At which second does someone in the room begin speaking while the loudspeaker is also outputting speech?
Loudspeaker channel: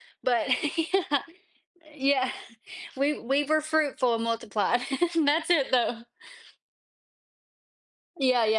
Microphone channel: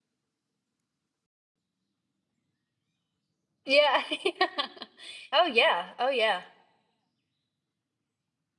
3.6 s

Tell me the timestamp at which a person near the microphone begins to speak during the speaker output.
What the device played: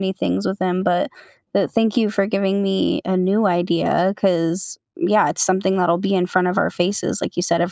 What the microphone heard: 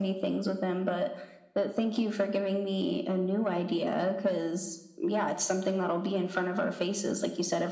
none

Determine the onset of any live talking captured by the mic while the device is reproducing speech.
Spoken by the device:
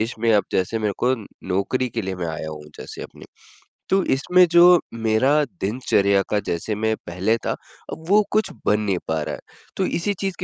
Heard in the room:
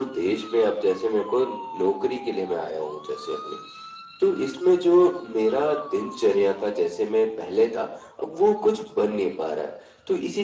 none

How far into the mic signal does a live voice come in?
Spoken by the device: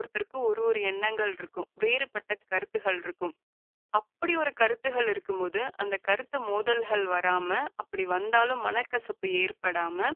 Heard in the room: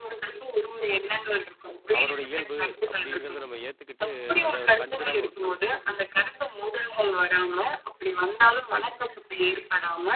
2.0 s

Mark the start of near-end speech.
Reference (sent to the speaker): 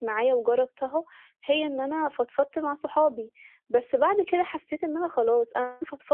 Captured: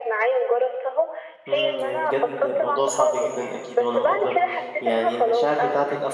1.5 s

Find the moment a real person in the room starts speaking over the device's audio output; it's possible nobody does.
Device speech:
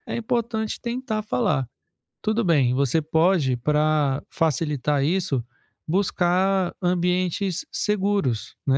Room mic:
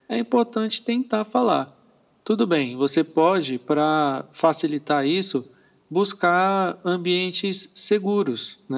none

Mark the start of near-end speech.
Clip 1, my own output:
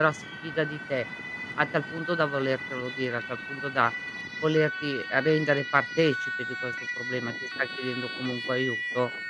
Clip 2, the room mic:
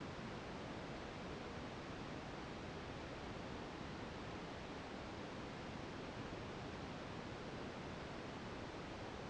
none

